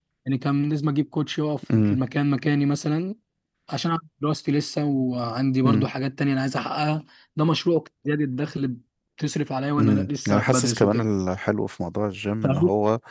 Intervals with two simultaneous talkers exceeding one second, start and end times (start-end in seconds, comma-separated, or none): 9.8-11.0